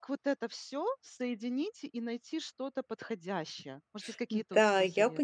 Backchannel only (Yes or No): No